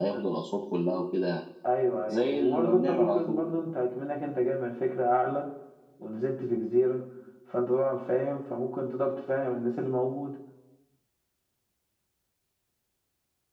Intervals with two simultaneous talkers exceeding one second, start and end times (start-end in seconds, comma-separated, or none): 2.1-3.4